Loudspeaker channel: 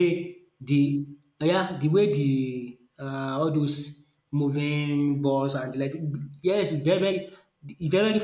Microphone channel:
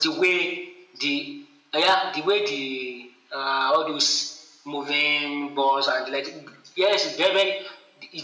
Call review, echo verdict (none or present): present